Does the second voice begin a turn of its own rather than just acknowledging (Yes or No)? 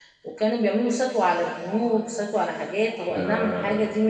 No